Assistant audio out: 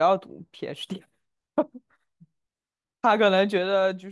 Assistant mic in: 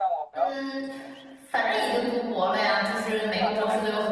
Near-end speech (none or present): present